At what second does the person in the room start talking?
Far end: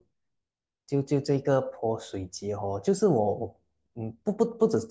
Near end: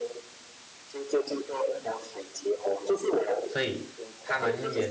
3.5 s

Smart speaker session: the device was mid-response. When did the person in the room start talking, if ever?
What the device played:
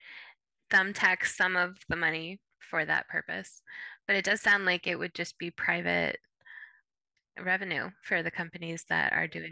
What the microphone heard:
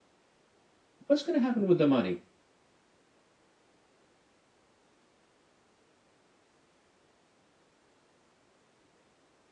1.0 s

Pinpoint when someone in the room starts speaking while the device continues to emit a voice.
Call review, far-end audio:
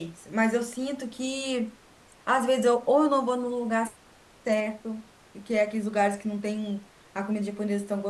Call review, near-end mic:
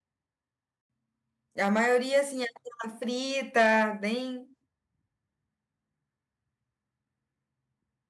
1.6 s

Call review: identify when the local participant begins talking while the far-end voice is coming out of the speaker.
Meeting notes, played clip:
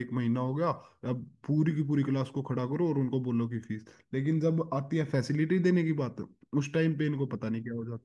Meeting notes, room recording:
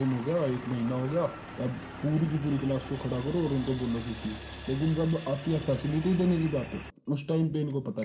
none

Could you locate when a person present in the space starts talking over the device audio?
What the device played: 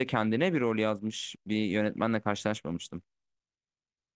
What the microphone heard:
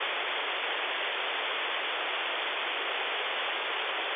none

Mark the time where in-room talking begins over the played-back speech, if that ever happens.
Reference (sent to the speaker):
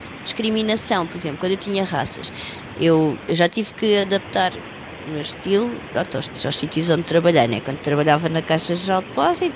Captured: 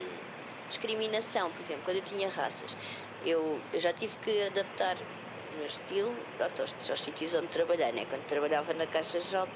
none

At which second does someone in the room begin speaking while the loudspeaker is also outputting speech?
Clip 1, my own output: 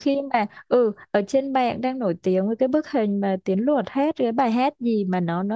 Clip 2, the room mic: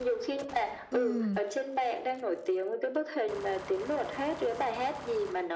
0.9 s

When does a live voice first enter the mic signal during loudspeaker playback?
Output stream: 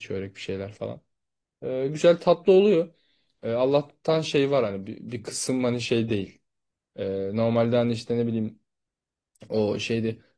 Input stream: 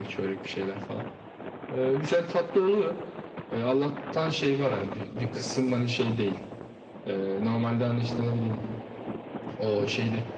none

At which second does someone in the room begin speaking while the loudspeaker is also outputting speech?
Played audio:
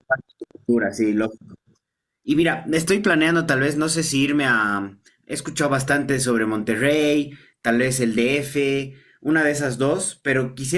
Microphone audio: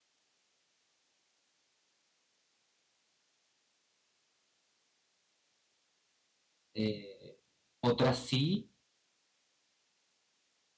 6.7 s

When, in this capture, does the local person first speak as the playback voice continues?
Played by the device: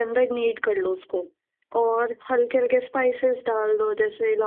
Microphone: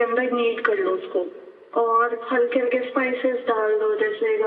none

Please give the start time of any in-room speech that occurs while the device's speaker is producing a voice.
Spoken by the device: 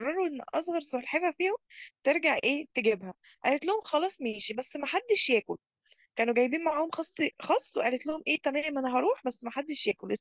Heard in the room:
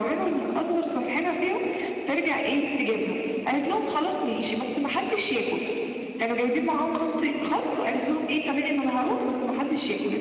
none

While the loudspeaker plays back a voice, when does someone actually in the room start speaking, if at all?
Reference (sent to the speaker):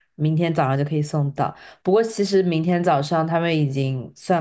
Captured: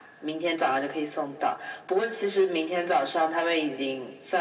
none

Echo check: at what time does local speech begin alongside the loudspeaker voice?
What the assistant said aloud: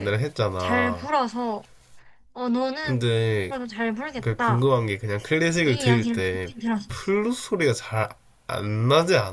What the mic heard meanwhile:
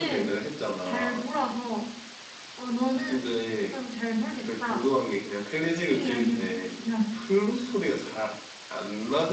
none

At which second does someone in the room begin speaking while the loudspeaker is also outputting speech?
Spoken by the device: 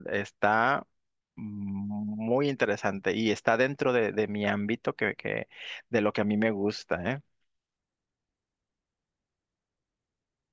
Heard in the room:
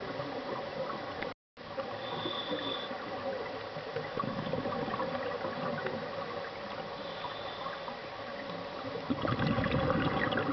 none

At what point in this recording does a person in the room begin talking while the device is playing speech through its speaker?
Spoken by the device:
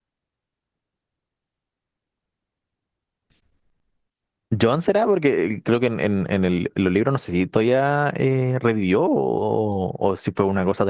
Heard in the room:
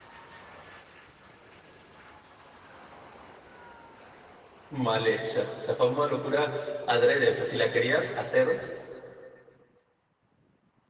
4.7 s

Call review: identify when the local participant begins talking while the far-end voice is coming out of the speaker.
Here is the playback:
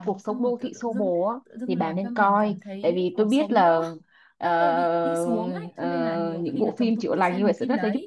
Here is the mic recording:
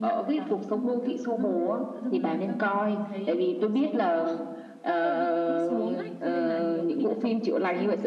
none

